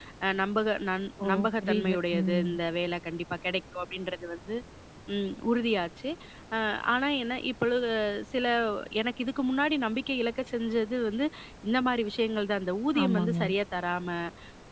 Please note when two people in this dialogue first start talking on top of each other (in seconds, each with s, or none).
1.2 s